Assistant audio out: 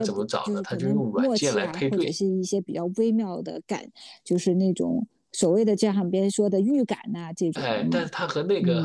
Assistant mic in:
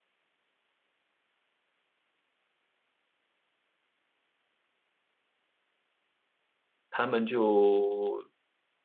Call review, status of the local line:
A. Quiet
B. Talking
B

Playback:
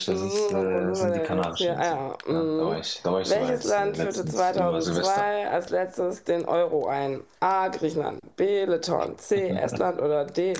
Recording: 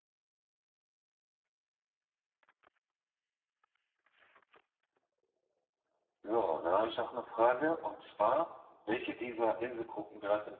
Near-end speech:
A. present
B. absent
A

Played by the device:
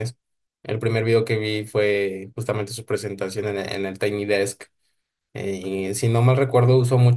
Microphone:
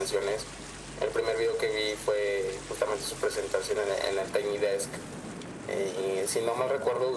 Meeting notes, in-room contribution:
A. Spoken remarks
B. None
B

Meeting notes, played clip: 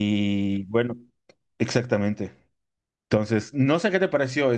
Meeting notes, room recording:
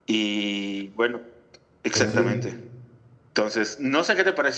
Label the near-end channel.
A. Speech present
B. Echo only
A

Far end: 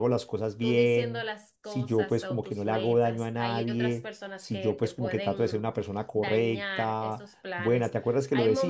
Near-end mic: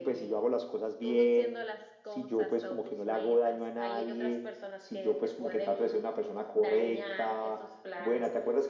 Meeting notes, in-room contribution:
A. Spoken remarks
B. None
B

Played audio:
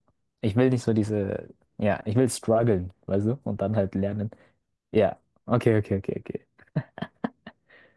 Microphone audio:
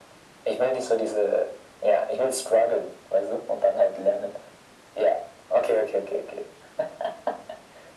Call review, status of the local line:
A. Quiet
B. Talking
A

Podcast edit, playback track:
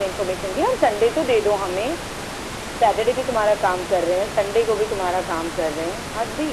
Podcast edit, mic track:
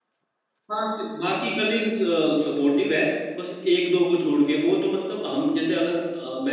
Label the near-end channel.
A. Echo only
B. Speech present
B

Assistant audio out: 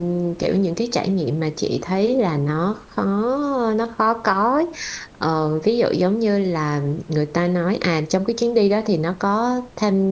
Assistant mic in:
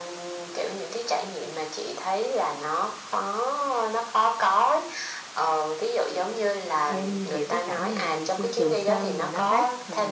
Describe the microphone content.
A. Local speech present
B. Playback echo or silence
A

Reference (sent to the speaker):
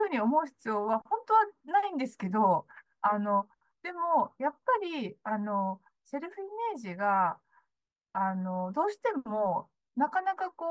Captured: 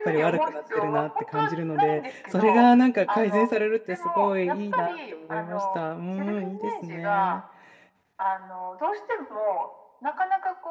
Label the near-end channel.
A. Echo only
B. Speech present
B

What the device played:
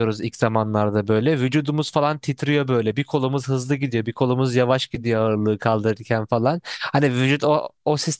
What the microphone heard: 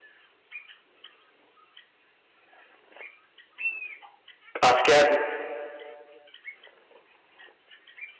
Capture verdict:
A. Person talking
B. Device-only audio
A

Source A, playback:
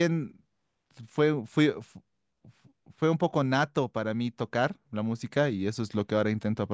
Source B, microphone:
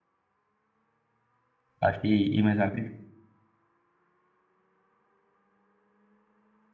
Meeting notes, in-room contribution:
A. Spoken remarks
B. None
A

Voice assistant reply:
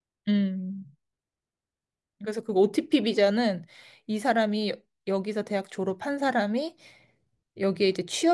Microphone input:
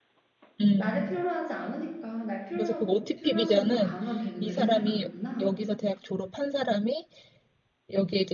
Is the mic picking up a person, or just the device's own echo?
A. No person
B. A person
B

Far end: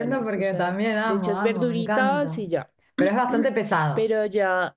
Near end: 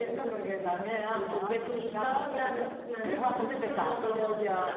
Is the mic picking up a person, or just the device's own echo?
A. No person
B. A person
B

